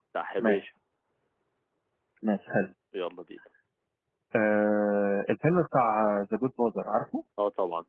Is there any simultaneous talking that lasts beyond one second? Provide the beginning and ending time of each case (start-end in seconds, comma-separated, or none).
none